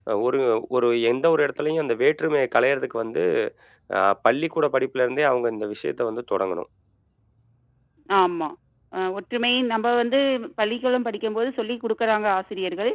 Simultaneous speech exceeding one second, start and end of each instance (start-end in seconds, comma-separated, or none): none